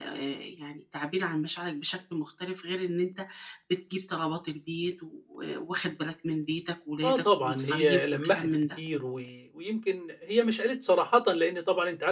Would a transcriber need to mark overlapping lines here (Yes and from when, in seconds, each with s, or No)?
Yes, from 7.0 s